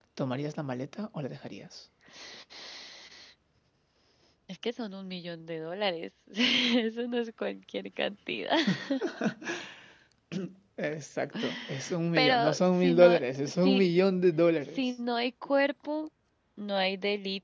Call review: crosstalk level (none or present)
present